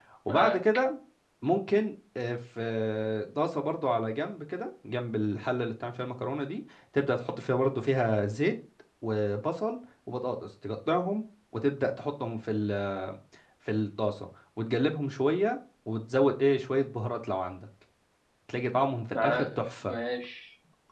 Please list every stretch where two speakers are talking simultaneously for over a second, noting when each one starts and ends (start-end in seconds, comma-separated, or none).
none